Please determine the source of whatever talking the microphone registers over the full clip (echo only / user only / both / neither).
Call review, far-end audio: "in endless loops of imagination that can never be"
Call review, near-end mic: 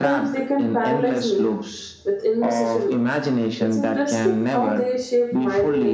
both